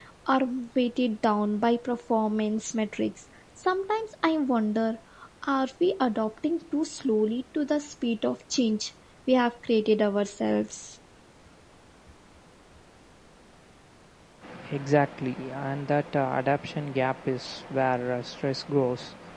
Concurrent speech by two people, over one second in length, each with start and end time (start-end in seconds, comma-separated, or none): none